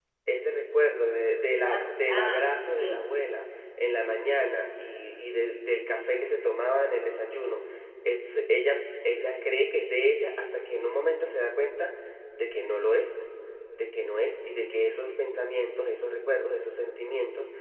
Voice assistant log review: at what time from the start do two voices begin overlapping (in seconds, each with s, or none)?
1.6 s